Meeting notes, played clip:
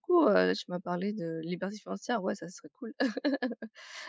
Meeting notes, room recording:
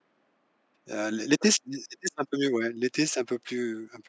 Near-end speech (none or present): present